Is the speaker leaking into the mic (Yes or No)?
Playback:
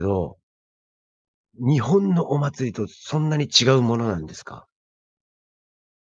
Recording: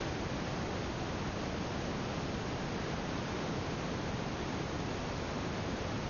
No